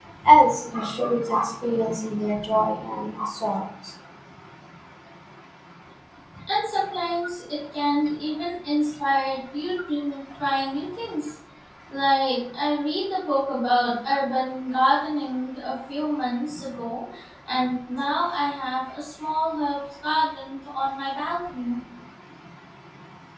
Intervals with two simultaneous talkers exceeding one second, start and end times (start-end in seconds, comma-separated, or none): none